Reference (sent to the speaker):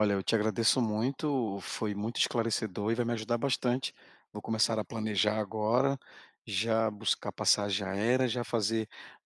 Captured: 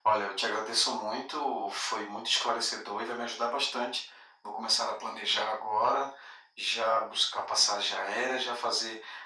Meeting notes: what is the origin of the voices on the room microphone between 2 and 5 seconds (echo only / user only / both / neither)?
echo only